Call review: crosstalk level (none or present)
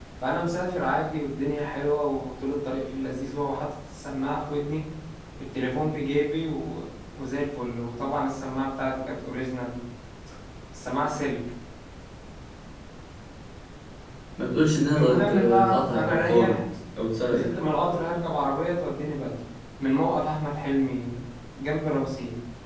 present